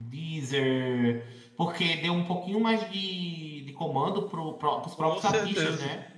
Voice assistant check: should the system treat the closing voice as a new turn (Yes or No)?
No